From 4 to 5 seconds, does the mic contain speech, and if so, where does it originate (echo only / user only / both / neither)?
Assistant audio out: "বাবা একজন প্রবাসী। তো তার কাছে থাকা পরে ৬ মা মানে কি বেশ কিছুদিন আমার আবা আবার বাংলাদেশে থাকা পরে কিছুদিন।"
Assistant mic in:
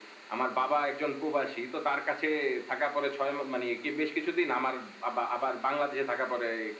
echo only